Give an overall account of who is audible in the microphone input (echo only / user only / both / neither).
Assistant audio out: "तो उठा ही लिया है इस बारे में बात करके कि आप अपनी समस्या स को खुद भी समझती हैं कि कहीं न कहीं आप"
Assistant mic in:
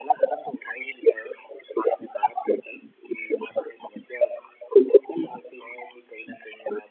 echo only